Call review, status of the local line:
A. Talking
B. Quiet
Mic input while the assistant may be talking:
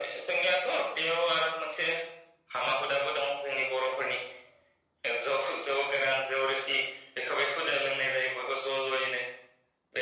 B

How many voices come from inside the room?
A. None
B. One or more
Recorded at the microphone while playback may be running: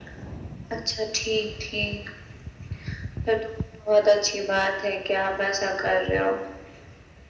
A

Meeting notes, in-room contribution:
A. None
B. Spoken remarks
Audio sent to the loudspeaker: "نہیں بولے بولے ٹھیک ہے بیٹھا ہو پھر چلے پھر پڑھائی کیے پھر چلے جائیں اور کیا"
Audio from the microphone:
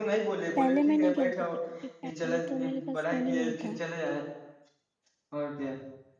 B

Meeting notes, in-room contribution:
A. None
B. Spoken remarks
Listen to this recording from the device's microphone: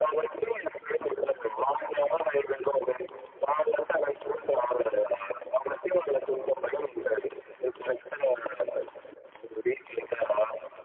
A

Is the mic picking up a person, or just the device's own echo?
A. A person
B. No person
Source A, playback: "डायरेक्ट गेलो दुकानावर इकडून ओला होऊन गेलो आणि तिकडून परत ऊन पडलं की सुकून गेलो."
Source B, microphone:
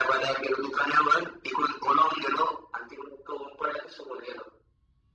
B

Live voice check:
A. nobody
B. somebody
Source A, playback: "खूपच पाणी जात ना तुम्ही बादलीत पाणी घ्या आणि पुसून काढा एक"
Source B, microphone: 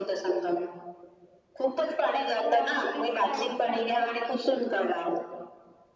B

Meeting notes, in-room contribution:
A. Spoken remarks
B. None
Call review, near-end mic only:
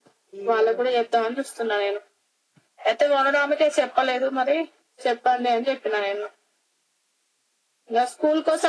A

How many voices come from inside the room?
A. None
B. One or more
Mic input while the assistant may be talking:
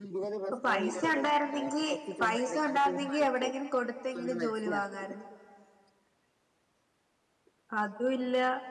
B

